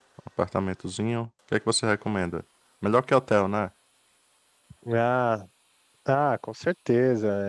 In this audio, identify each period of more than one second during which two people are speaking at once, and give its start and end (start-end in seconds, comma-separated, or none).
none